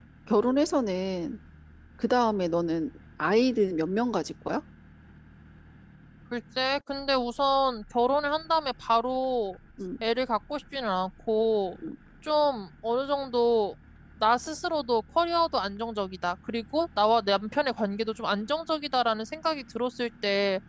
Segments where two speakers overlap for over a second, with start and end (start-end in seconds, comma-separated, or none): none